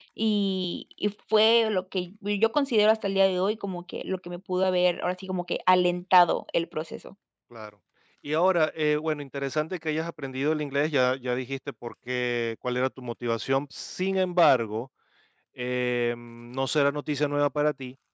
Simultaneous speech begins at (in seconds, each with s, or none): none